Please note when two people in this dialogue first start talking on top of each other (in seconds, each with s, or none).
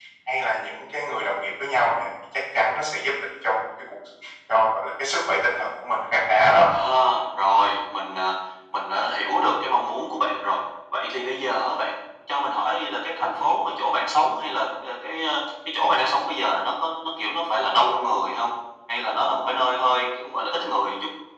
none